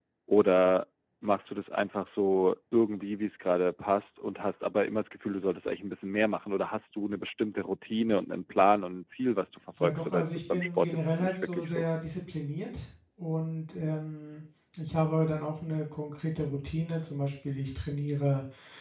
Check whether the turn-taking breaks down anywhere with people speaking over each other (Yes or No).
Yes